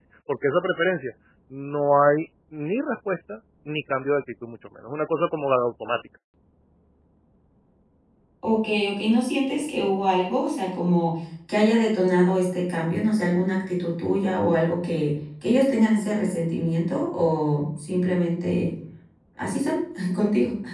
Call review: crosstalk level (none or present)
none